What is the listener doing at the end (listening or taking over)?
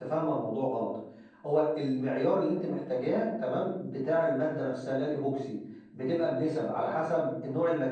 listening